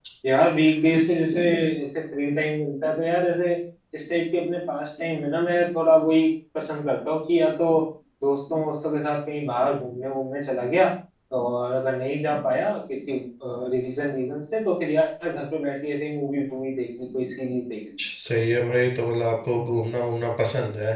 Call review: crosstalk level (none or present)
none